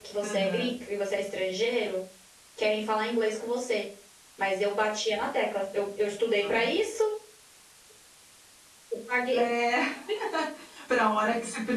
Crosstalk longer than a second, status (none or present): none